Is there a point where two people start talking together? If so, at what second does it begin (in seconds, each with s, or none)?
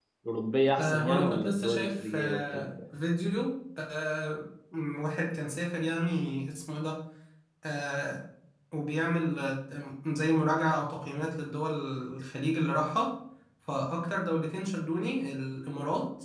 0.8 s